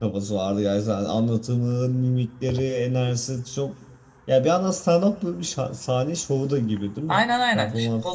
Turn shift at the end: Yes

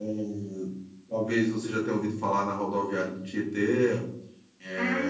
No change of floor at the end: No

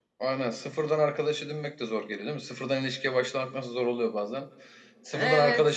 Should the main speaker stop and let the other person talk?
No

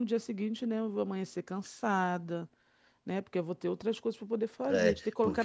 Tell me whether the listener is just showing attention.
No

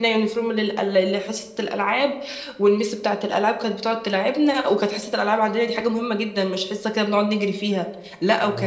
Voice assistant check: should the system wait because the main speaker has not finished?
Yes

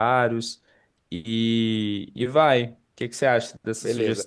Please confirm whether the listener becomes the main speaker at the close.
Yes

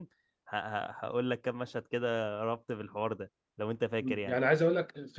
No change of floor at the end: No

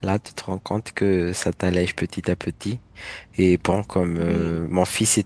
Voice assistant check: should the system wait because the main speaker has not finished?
Yes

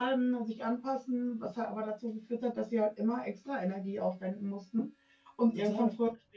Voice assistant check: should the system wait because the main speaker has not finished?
Yes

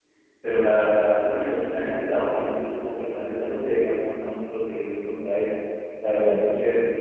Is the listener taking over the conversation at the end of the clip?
No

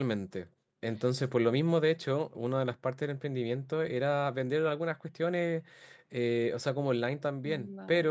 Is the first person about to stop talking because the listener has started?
No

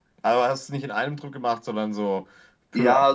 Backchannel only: No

